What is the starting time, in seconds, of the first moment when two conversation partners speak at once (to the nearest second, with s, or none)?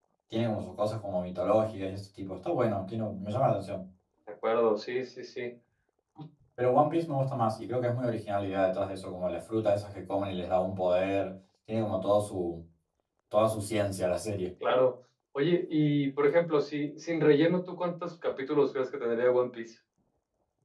none